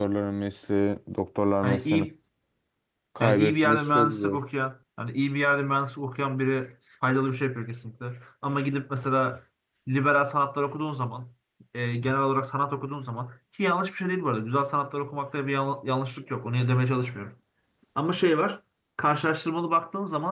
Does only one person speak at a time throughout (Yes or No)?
No